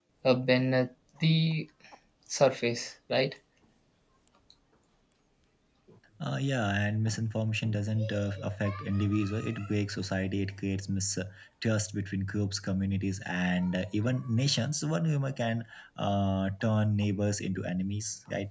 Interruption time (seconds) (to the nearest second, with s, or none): none